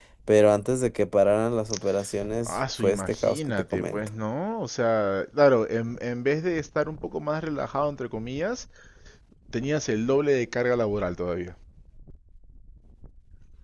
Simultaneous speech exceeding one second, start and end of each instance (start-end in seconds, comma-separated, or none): 2.5-4.0